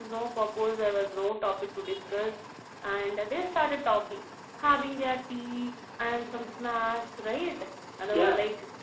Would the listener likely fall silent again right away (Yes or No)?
Yes